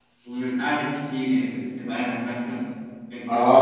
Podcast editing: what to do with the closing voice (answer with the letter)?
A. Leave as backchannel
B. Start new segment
B